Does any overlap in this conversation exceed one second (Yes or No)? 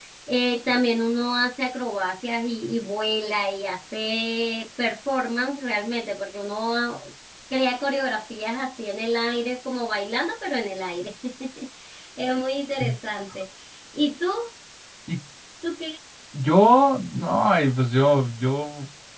No